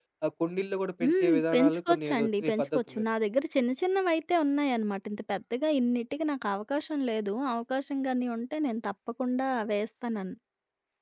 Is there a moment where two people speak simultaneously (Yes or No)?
Yes